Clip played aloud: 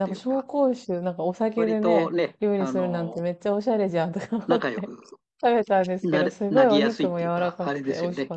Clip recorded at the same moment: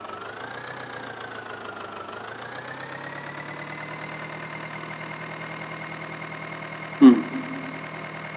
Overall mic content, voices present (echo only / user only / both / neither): user only